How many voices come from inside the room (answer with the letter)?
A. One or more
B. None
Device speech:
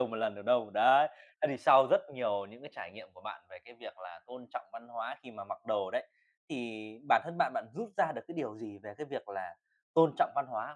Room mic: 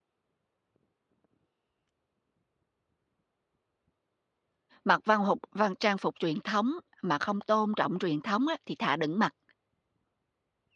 A